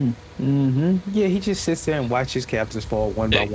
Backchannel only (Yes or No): Yes